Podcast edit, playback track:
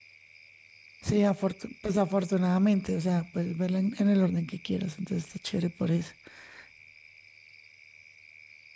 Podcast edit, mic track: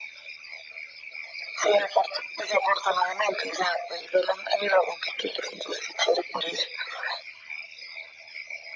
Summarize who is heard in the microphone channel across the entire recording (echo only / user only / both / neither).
echo only